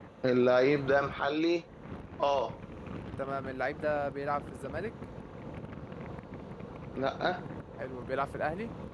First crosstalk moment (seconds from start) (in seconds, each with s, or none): none